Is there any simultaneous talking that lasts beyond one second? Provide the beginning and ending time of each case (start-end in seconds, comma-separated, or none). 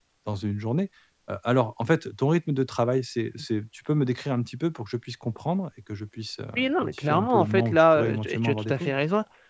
6.6-8.9